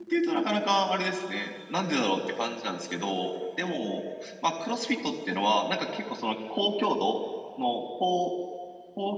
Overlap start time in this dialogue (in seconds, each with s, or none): none